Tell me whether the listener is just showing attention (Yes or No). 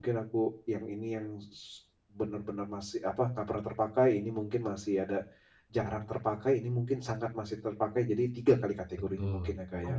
No